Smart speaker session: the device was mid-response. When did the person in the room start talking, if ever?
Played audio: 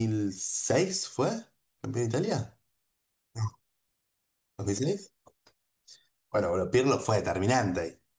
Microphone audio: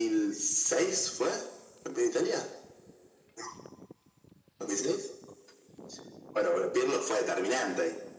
none

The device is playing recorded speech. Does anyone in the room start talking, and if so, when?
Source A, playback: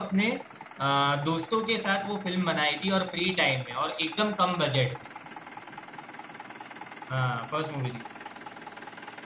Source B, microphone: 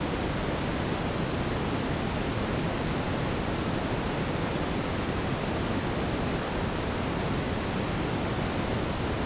none

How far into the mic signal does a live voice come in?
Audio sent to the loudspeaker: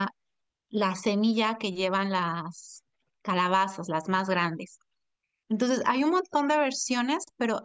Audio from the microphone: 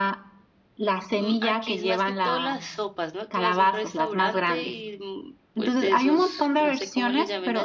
1.1 s

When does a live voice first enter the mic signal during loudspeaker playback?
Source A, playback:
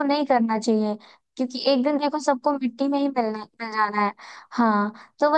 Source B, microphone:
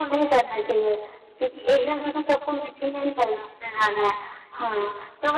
none

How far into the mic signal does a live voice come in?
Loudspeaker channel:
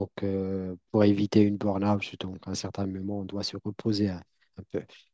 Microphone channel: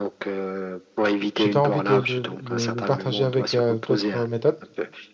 1.3 s

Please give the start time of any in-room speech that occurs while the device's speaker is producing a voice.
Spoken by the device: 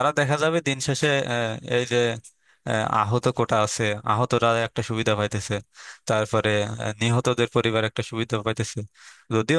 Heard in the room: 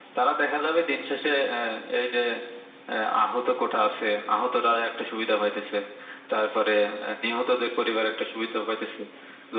none

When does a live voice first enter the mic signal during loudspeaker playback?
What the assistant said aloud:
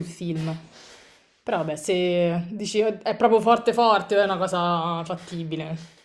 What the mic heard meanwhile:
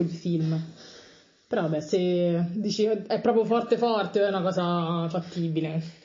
none

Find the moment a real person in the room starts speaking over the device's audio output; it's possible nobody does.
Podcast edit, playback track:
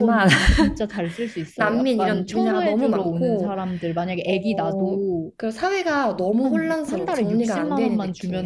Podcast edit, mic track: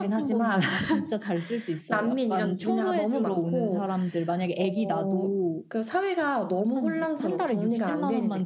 none

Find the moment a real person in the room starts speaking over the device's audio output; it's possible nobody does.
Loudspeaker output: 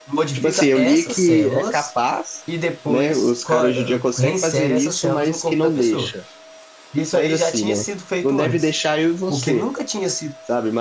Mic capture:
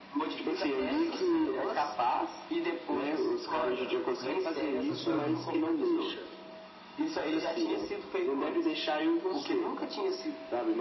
4.9 s

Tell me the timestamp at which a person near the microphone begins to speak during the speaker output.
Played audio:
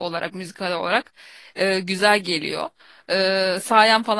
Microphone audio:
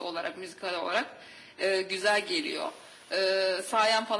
none

